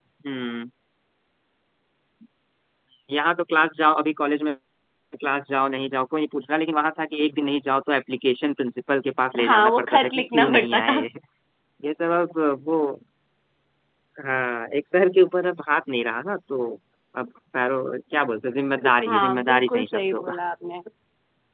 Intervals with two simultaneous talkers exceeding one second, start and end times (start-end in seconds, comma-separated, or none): 9.4-11.0, 19.1-20.4